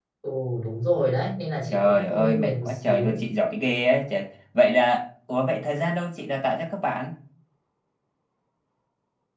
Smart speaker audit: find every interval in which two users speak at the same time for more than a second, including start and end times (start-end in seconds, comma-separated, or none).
1.7-3.2